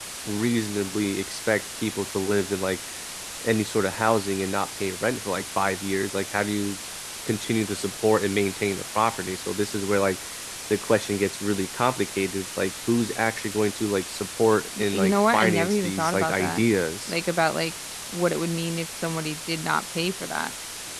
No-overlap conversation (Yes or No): No